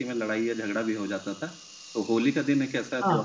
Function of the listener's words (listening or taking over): listening